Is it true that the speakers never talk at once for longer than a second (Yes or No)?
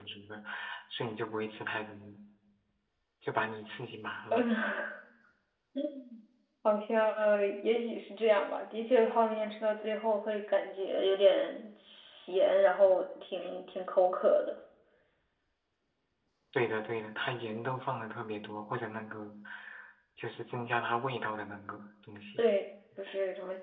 Yes